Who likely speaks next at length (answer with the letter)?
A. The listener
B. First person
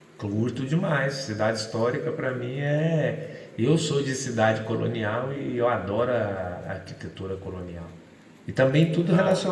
B